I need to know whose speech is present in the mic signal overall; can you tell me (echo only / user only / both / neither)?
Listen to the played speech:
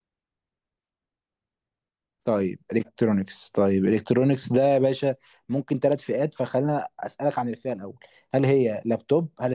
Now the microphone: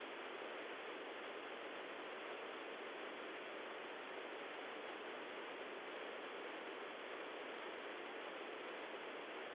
neither